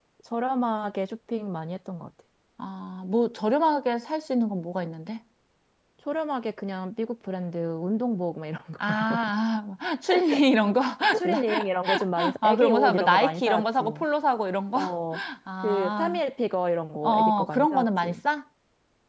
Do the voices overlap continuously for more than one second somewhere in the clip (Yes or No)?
Yes